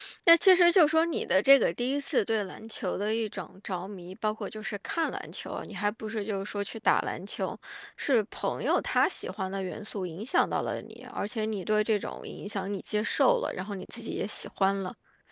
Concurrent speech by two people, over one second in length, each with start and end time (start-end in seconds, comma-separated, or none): none